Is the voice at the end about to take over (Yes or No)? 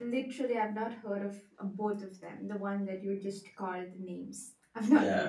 Yes